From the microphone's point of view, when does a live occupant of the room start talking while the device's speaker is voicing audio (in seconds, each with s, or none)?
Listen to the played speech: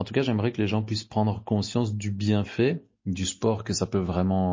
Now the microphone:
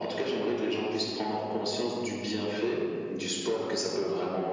none